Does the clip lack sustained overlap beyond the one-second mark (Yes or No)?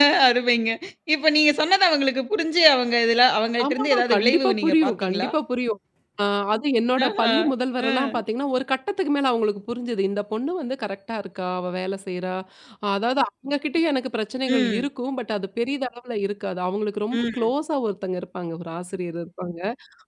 No